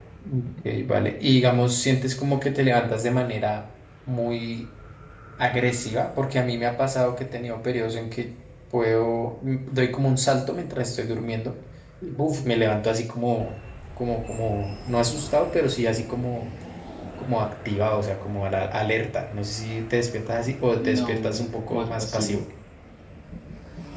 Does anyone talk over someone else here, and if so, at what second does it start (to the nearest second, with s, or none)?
21 s